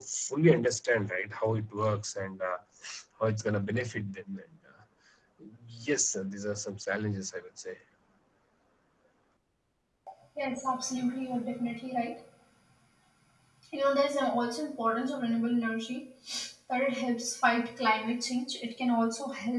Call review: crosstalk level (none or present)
none